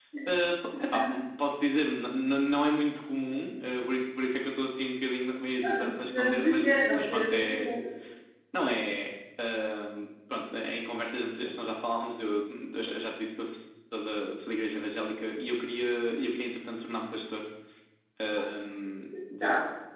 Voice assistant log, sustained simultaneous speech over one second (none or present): present